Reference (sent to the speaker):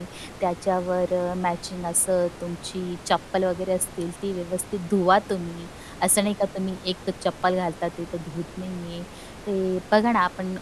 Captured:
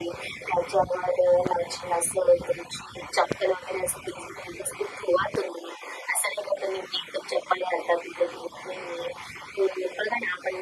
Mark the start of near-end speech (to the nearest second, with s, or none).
none